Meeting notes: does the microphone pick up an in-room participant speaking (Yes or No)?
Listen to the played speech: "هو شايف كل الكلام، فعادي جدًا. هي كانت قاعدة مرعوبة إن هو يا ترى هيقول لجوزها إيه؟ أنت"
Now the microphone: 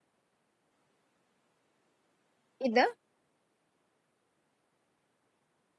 Yes